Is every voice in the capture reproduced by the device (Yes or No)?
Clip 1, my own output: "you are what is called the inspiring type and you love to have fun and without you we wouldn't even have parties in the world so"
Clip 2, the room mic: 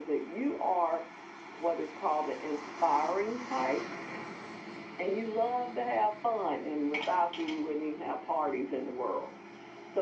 Yes